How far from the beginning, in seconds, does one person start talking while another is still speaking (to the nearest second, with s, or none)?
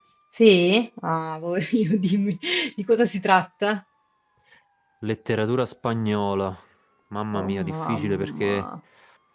7 s